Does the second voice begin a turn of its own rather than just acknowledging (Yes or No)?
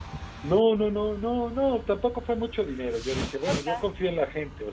No